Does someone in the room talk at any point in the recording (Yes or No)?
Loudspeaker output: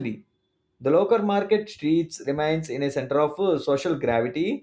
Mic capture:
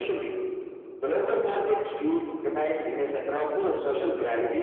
No